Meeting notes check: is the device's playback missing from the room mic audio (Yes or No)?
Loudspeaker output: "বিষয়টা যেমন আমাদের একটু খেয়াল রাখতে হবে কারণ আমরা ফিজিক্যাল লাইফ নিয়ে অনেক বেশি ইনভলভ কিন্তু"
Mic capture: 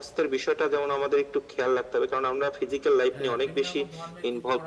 No